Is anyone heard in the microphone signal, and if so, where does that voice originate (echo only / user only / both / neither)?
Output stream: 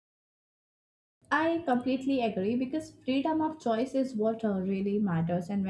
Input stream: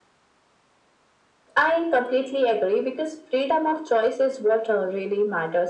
echo only